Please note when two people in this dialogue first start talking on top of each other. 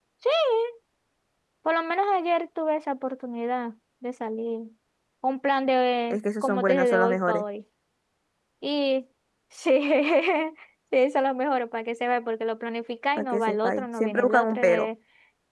6.1 s

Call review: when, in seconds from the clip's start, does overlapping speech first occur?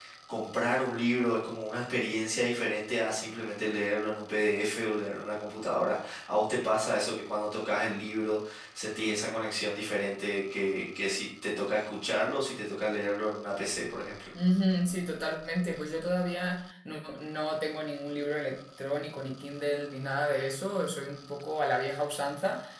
none

